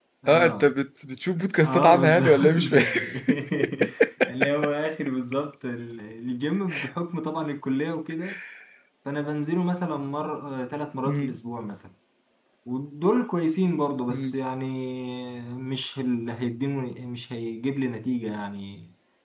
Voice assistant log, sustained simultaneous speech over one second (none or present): present